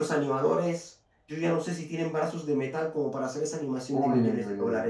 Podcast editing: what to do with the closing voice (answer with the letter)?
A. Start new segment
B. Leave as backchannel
A